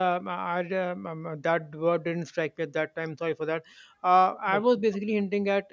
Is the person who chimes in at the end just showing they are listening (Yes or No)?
Yes